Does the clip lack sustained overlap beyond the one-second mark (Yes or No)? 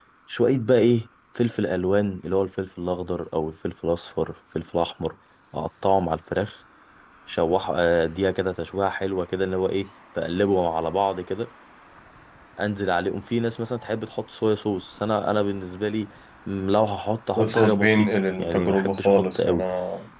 No